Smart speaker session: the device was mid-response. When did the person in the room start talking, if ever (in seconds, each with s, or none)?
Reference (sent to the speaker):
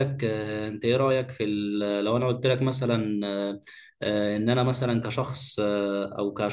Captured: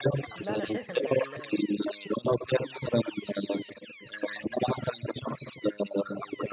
0.3 s